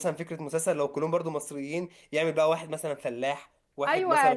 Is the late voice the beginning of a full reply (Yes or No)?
Yes